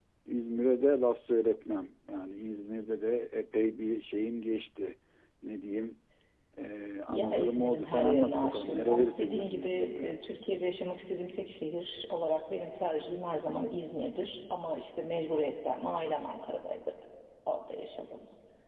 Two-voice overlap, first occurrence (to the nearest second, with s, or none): 7 s